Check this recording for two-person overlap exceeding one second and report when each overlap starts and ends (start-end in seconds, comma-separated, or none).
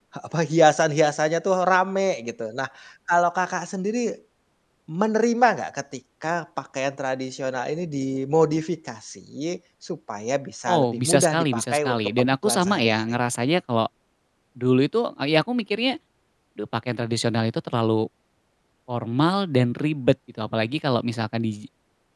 10.7-13.1